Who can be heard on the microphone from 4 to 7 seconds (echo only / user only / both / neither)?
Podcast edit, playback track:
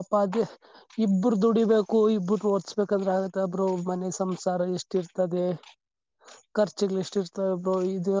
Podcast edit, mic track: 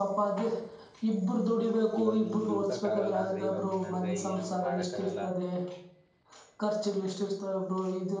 both